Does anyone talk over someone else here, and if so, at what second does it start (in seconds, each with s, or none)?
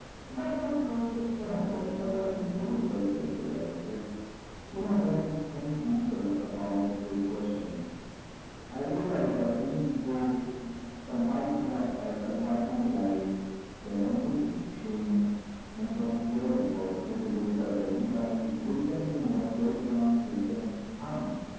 1.4 s